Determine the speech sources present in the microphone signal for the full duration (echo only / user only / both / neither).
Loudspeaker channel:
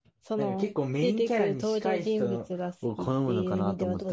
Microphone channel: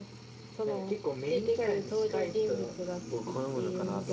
echo only